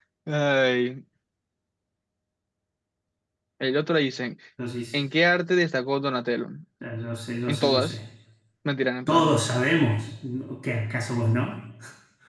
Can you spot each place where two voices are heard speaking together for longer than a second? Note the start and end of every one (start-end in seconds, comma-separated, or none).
none